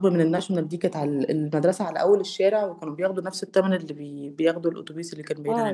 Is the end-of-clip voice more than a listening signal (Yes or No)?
Yes